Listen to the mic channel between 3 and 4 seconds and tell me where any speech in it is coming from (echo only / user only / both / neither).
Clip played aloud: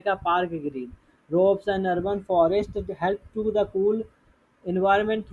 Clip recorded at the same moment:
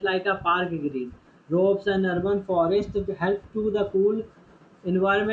echo only